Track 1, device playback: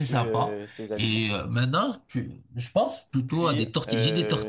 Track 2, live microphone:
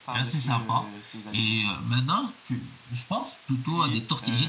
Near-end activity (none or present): none